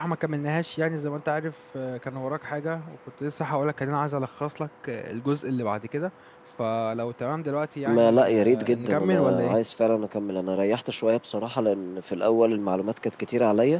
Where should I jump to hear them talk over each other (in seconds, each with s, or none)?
7.8 s